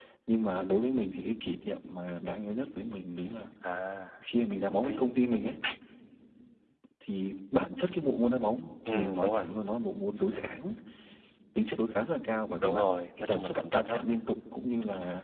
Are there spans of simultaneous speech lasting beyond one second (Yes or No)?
Yes